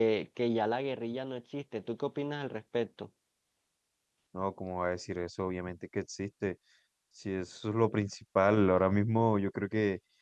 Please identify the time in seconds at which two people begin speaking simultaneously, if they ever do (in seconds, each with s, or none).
none